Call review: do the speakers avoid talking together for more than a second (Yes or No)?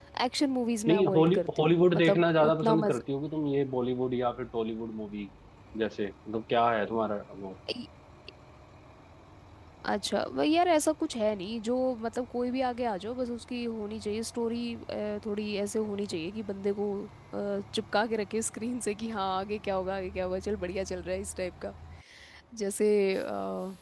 No